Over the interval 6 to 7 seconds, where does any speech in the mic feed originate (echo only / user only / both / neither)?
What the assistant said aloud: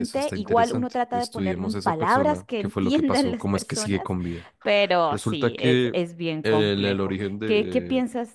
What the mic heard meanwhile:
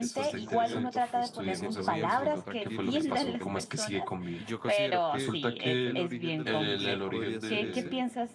both